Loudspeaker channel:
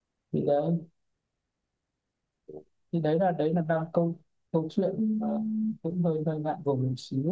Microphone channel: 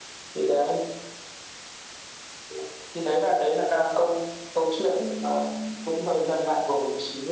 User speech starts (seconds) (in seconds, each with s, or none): none